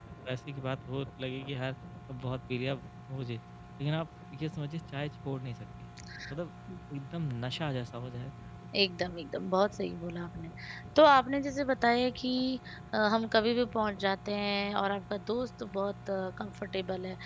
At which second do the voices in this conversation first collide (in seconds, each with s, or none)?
none